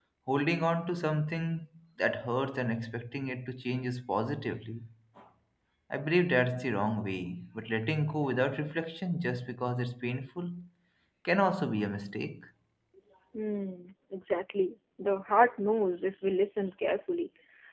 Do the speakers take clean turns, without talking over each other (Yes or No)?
Yes